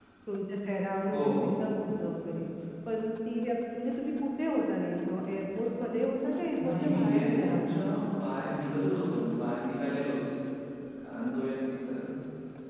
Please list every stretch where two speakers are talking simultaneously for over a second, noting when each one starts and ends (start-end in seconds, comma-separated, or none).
6.6-7.9